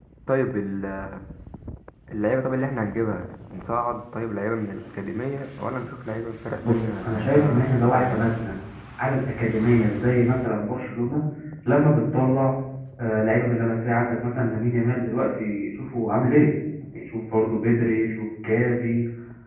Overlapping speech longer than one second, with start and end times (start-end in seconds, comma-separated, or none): 6.6-8.2